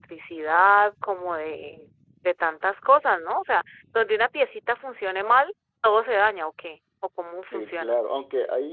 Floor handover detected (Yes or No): Yes